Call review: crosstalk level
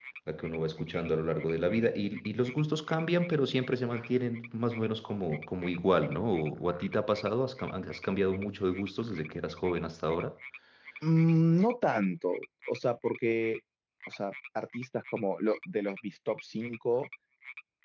none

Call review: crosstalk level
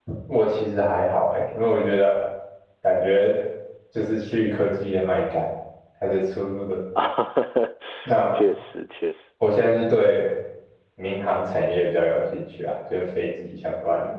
none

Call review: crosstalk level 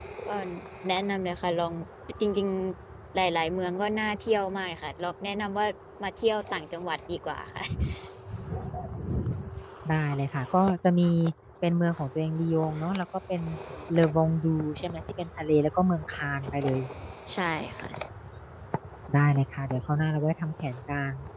none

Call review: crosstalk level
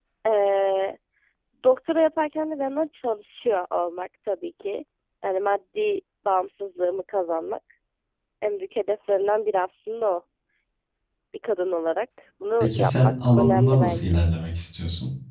present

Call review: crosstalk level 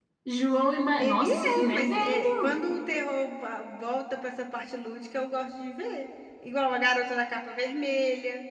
present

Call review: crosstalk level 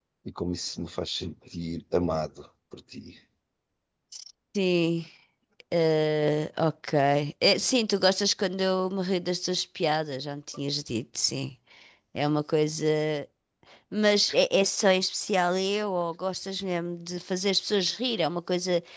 none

